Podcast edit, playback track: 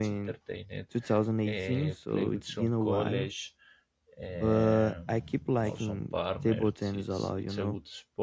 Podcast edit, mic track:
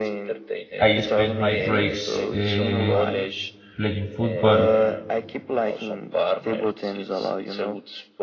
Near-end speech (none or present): present